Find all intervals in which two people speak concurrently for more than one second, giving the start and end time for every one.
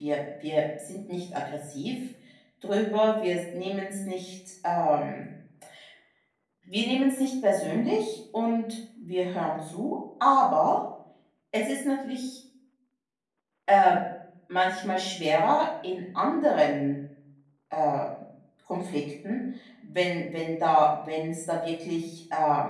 none

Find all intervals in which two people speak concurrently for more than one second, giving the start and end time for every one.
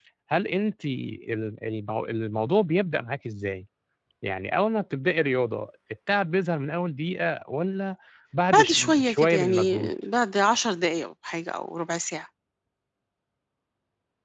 8.5-9.9

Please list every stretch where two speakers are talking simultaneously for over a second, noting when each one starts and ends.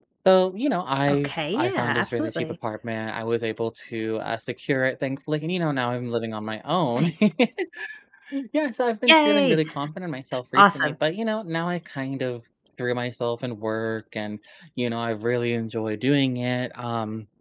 1.1-2.5

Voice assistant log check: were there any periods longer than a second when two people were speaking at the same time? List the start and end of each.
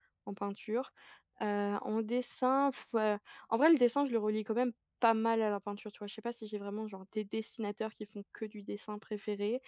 none

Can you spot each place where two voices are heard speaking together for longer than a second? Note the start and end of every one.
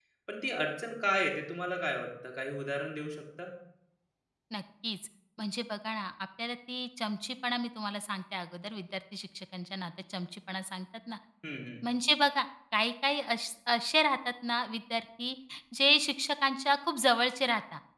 none

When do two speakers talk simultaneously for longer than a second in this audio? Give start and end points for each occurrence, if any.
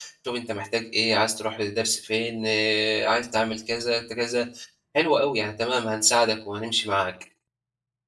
none

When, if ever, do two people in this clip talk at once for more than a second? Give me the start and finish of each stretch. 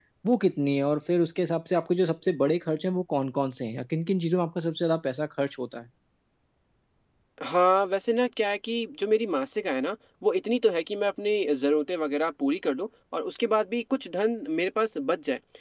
none

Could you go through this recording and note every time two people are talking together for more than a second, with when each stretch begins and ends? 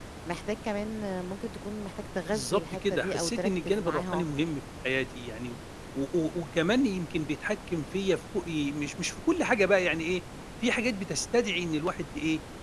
2.3-4.3

